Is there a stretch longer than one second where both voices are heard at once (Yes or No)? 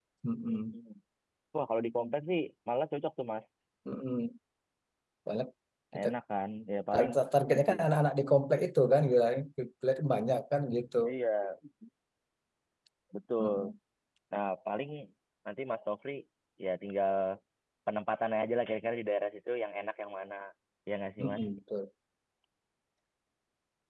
No